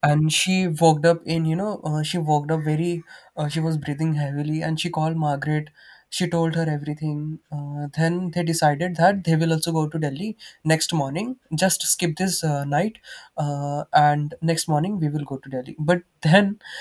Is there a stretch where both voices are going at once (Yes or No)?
No